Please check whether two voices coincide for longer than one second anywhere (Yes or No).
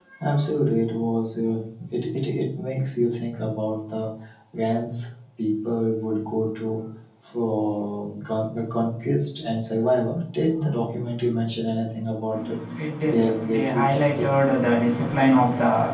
Yes